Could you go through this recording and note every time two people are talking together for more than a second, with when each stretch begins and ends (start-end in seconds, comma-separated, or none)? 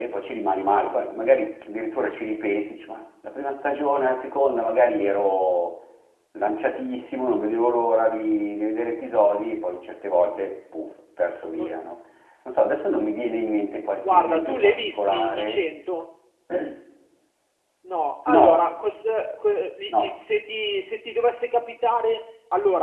14.1-15.6